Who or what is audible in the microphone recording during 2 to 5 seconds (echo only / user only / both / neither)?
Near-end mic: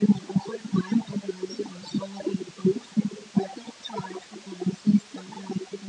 echo only